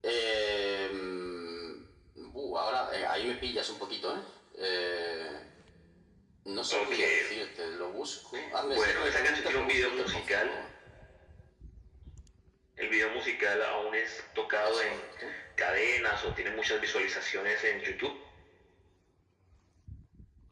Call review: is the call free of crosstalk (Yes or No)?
No